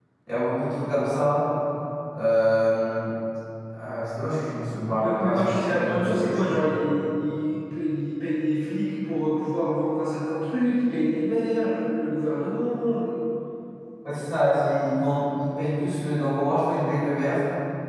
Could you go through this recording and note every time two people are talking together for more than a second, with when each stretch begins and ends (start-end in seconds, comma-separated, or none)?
5.0-6.7